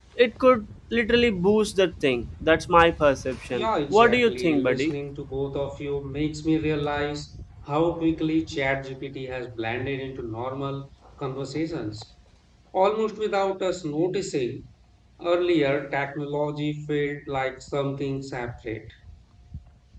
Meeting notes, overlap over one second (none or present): present